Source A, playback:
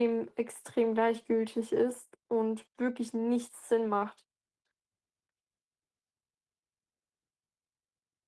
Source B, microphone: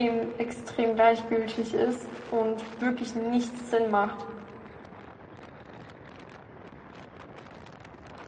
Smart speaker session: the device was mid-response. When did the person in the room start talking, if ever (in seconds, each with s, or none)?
none